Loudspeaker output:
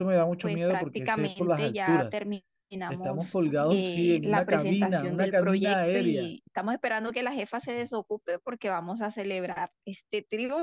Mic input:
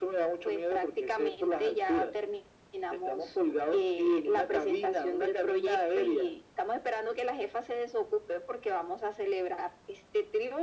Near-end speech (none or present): none